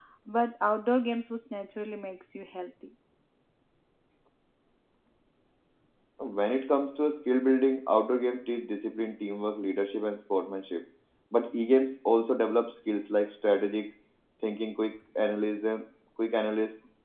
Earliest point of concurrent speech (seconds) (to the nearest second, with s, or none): none